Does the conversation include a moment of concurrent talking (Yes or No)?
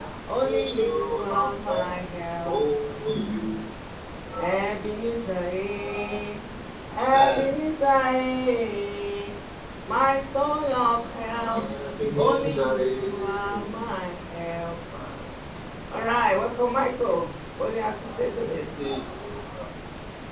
Yes